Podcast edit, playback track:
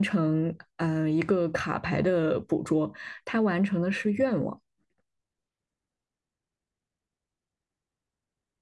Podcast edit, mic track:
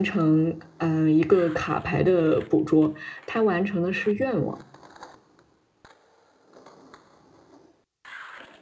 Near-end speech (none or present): none